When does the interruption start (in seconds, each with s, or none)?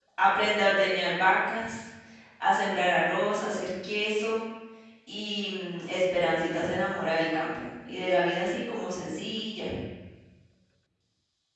none